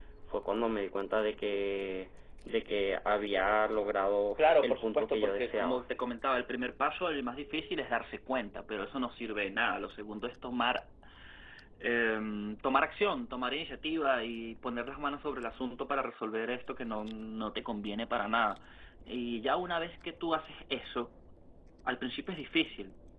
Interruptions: present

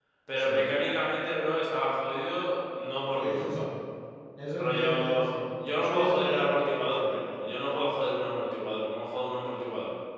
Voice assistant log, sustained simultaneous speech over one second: present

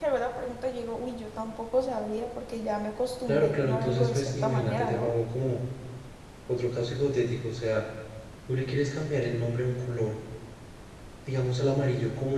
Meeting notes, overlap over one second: present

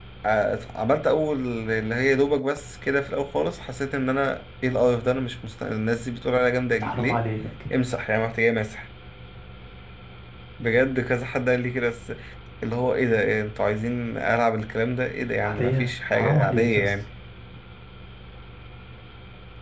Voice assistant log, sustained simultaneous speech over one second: present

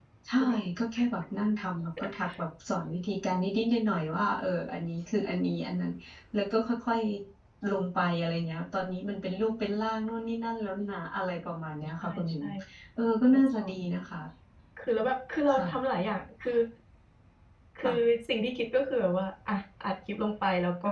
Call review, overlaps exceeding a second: none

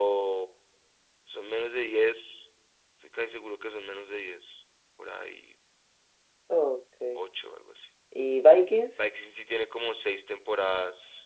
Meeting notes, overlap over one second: none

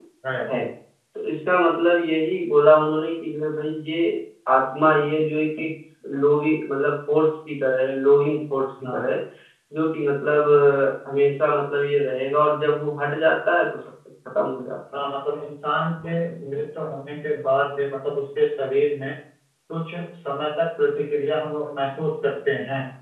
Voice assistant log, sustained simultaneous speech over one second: none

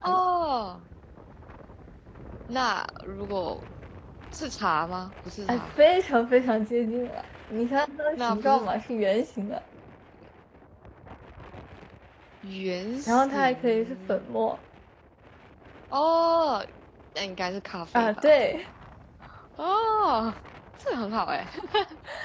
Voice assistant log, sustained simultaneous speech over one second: present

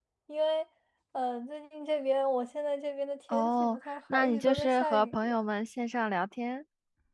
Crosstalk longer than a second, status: present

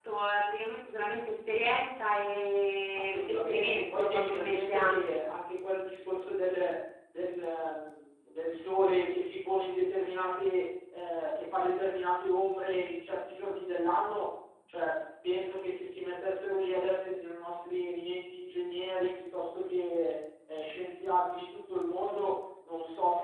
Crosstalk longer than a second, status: present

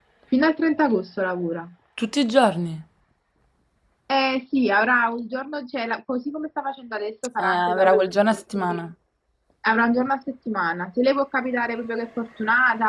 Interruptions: present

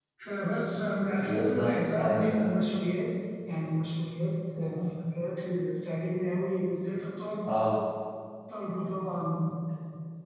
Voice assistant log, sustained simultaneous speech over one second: present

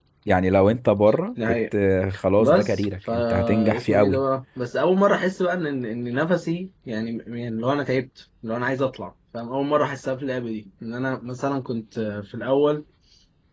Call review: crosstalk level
present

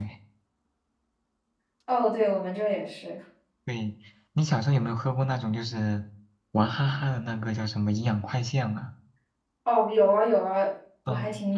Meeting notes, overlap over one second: none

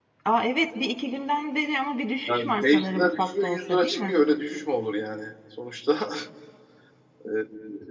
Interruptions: present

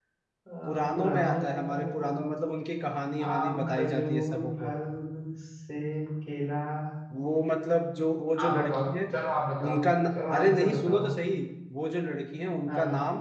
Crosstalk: present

